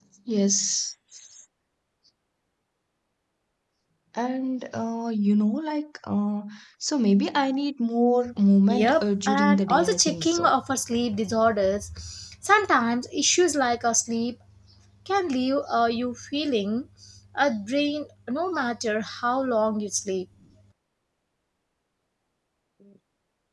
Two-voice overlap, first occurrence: 9 s

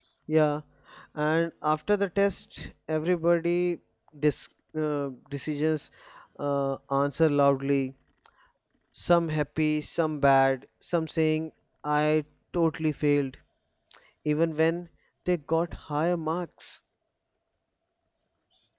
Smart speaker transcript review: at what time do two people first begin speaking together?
none

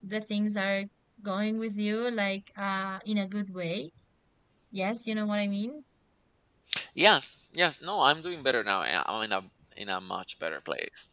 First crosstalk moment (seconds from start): none

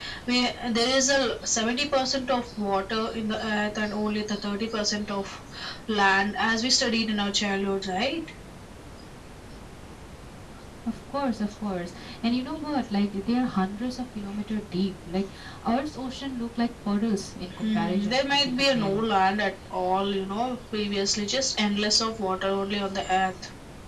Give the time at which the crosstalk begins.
18 s

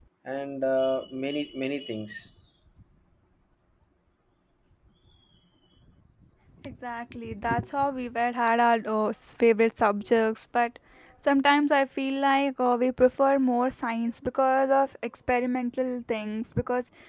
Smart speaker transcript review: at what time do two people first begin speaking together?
none

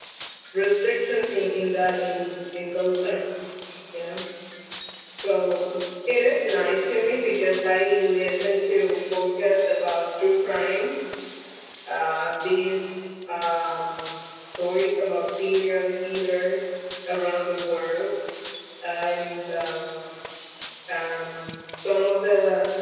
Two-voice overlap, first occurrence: none

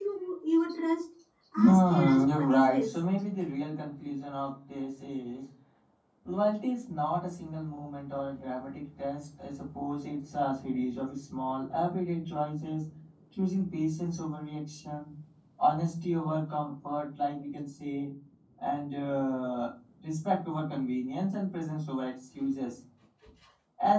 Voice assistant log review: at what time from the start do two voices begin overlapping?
2 s

